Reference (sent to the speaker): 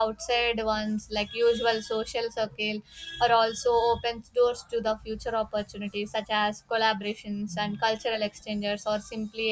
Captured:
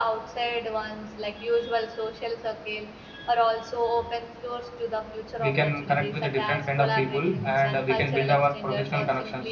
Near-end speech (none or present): present